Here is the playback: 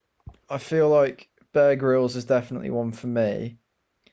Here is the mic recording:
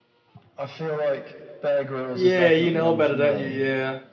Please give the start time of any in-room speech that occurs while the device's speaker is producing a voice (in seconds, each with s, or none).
2.1 s